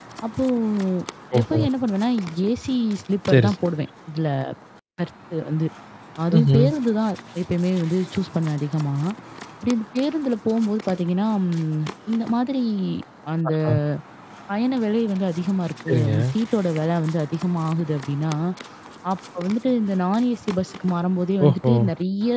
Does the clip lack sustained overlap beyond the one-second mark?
Yes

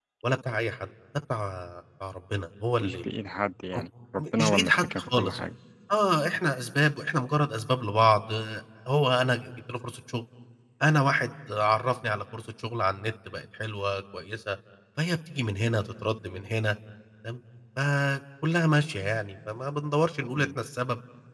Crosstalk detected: Yes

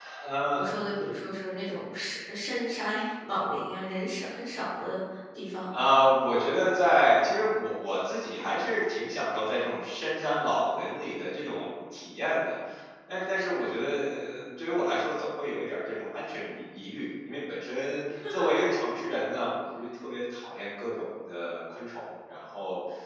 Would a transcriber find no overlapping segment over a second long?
Yes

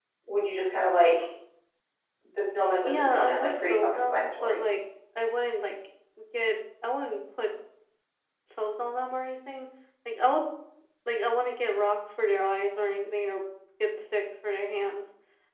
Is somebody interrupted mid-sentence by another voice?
Yes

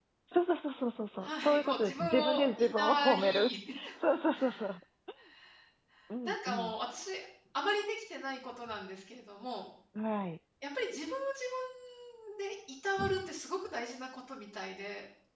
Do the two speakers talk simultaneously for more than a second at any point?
Yes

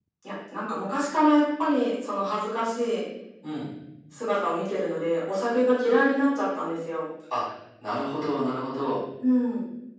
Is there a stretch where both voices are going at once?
No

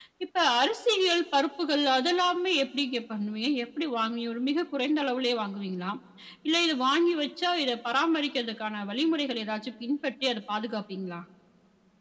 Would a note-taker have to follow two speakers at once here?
No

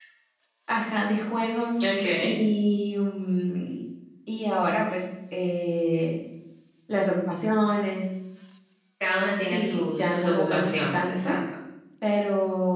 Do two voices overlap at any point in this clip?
Yes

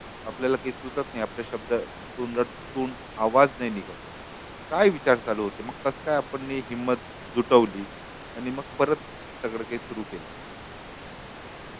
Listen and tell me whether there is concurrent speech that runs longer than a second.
No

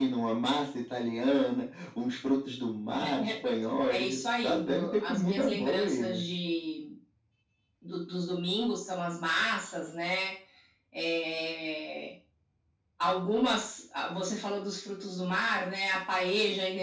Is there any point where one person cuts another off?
Yes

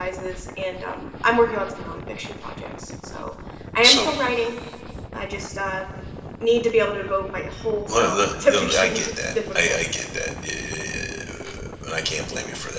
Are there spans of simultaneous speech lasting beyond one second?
Yes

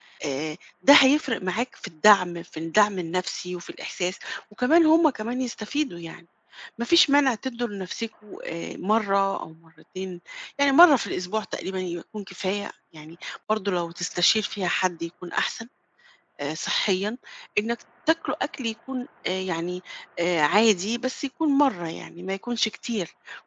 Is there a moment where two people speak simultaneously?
No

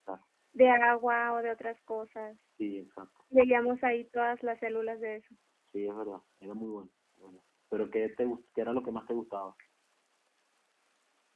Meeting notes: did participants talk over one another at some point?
No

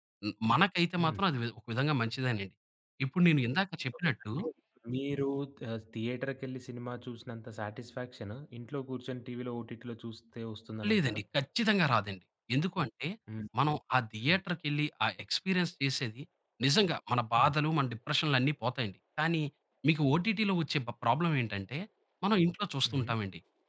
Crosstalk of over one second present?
No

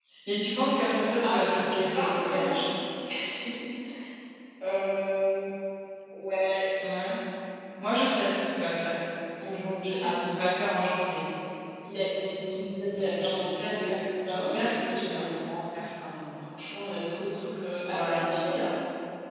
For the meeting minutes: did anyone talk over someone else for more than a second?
Yes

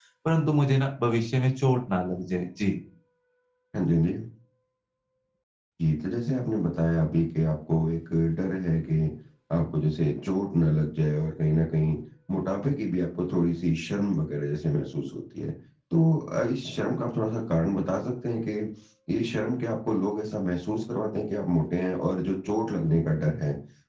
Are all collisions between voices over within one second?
Yes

